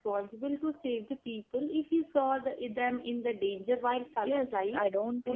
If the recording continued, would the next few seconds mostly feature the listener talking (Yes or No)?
Yes